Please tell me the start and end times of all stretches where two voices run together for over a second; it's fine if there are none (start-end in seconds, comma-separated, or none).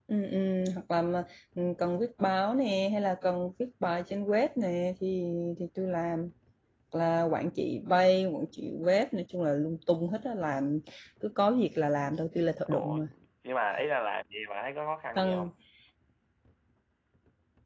none